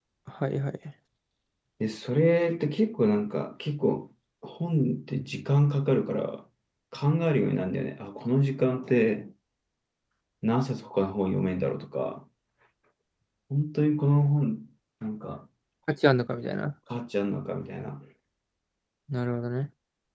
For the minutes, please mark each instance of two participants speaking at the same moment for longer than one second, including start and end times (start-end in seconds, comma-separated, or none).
none